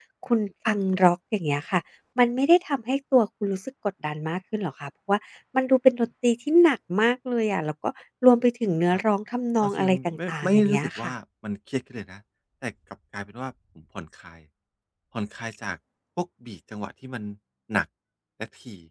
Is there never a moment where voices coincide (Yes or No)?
No